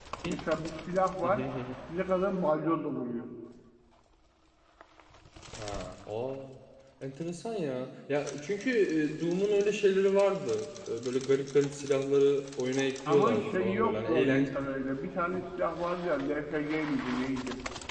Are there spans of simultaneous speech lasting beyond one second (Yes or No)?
Yes